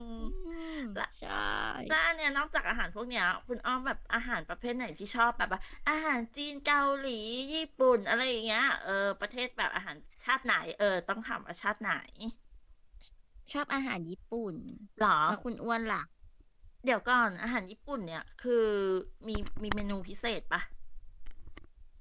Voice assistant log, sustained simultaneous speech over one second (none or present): none